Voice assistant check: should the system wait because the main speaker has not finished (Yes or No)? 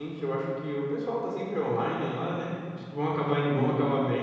Yes